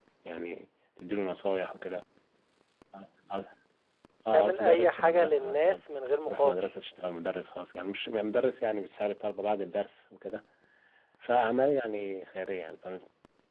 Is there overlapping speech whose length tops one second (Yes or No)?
Yes